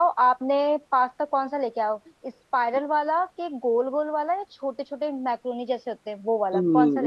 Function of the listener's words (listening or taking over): taking over